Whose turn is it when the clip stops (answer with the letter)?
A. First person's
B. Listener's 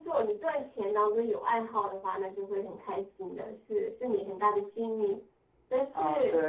B